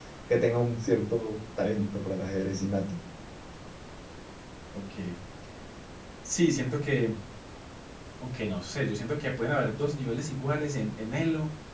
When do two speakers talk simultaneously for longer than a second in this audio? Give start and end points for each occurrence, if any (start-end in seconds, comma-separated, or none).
none